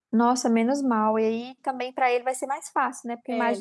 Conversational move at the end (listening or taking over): listening